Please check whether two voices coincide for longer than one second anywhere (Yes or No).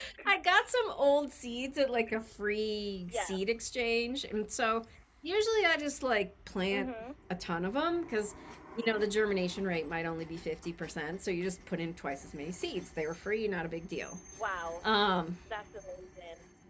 No